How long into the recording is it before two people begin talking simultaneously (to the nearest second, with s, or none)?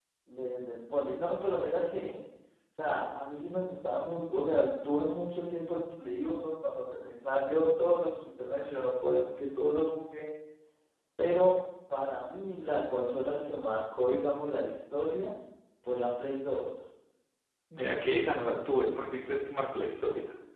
none